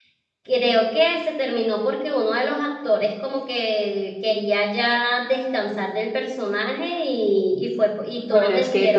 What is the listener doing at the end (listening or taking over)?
taking over